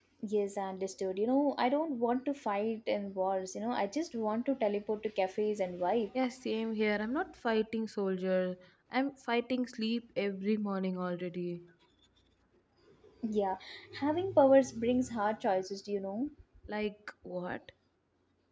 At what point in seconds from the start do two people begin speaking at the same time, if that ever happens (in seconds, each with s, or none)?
none